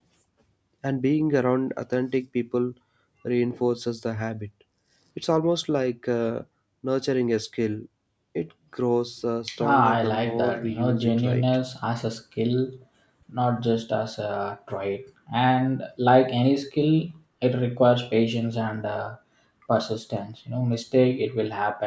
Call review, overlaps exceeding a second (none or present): present